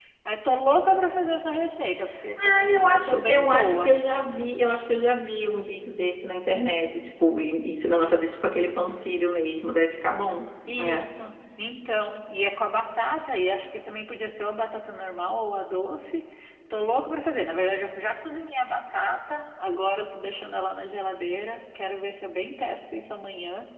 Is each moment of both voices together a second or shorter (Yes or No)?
No